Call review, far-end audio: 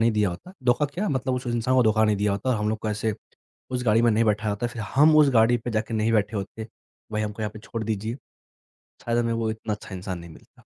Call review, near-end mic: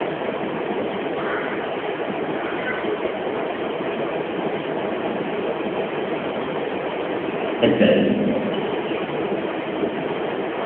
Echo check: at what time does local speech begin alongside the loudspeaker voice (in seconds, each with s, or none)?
7.6 s